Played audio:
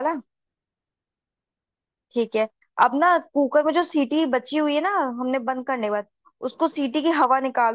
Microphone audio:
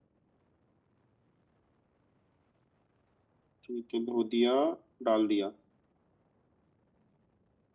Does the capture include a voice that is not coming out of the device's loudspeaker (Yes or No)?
Yes